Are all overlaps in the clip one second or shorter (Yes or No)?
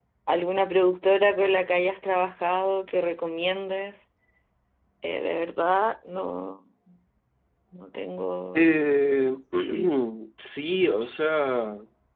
Yes